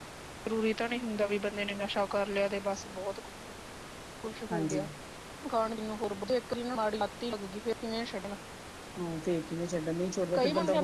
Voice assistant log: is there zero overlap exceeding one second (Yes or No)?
Yes